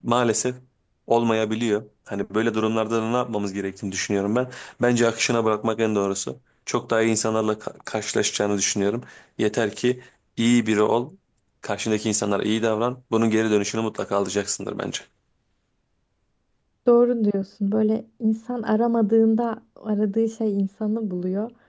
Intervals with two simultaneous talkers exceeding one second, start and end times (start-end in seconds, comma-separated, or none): none